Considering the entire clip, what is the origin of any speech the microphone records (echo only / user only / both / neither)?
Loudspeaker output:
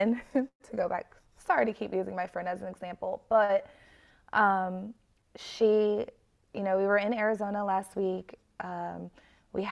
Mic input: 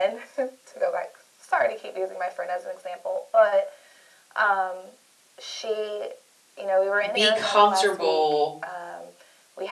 both